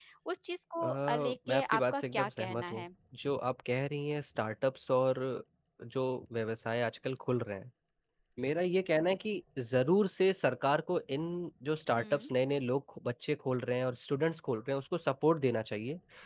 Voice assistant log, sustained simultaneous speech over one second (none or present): present